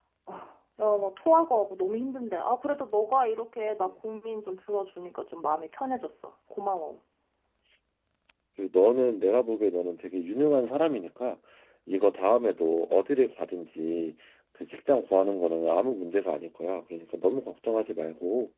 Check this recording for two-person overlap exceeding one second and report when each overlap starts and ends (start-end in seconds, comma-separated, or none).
none